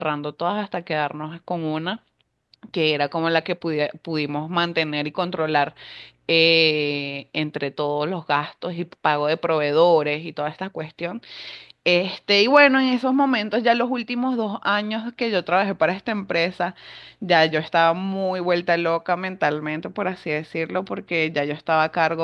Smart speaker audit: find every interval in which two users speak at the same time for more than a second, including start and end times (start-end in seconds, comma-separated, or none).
none